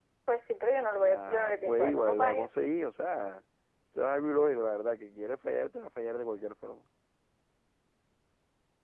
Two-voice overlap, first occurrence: 1.0 s

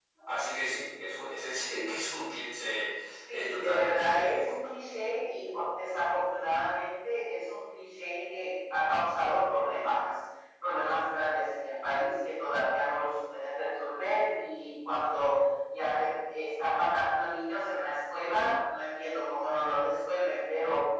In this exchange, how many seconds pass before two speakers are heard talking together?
3.3 s

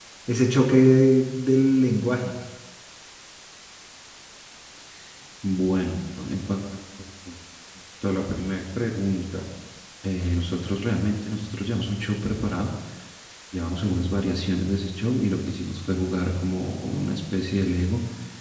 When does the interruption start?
none

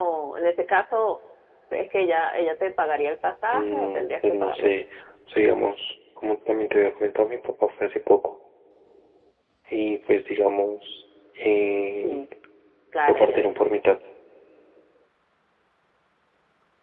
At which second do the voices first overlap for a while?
3.4 s

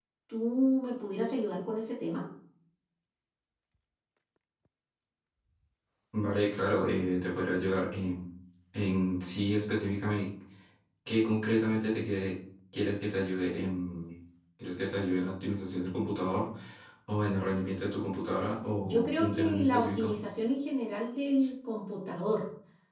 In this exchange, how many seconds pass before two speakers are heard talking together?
18.8 s

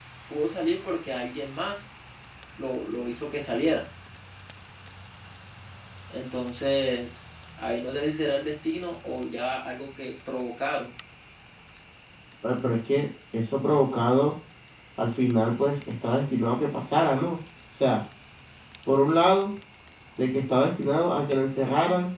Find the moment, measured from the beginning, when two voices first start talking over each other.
none

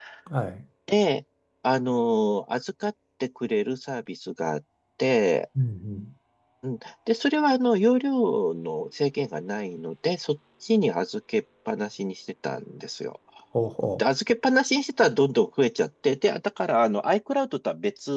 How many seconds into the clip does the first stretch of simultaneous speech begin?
none

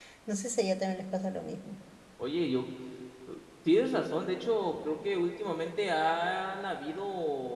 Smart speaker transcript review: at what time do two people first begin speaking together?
none

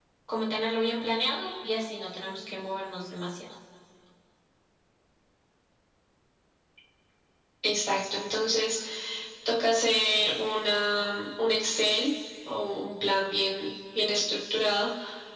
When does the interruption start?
none

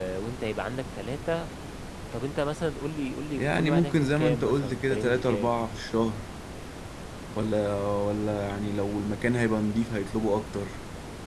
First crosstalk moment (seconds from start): 3.4 s

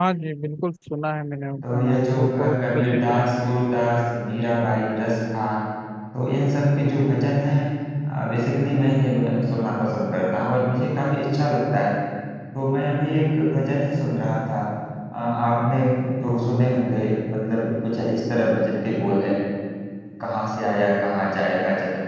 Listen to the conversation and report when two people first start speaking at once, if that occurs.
1.6 s

